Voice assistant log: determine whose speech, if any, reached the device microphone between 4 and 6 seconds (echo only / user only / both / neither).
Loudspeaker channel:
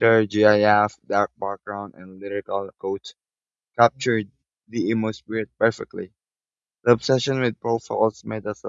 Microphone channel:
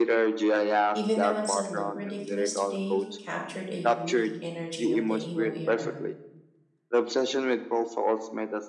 both